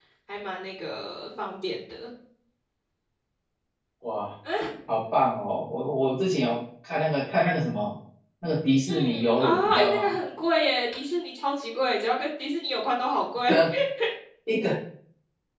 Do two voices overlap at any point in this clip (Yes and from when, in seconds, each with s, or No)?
Yes, from 8.9 s